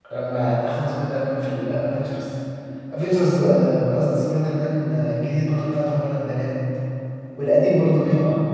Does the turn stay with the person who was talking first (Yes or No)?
Yes